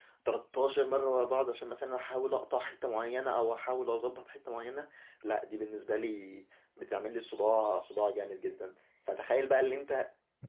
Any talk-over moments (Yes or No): No